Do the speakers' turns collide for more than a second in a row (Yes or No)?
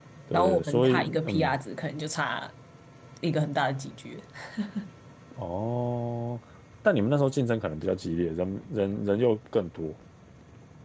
Yes